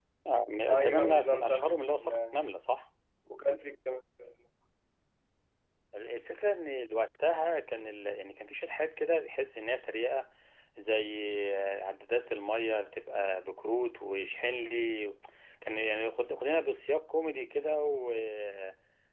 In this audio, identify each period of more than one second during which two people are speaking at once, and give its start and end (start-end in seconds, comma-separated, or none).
0.7-2.4